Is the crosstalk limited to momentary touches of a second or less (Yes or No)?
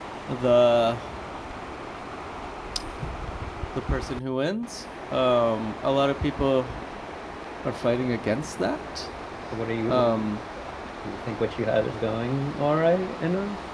Yes